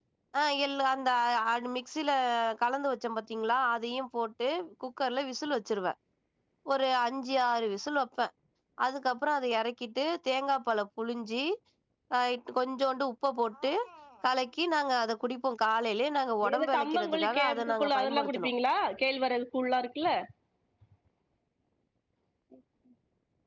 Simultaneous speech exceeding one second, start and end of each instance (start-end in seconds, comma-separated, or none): 16.4-18.5